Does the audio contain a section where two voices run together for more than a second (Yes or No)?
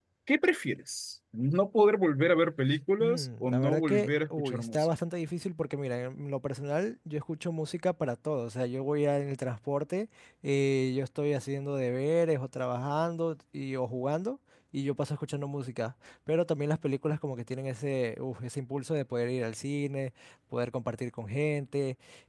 Yes